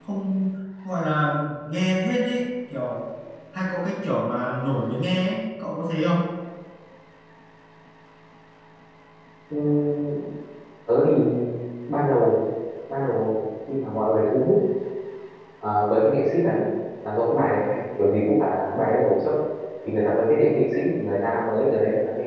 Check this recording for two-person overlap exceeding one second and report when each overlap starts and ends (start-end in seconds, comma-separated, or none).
none